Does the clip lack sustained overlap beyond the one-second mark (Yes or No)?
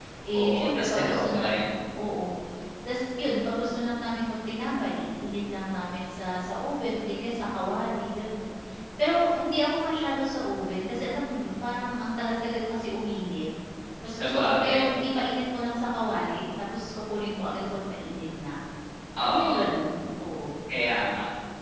No